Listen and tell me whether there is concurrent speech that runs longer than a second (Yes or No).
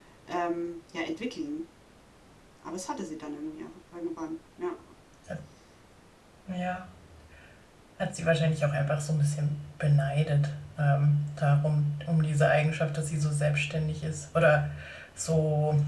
No